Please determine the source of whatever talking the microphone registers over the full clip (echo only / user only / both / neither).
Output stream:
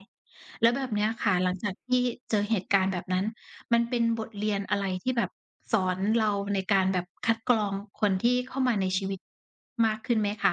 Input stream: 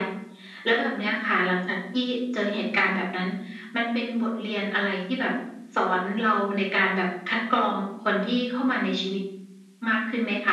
echo only